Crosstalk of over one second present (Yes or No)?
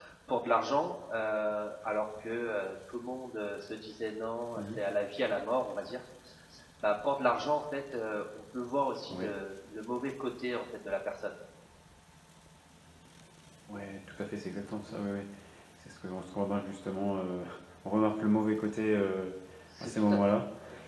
No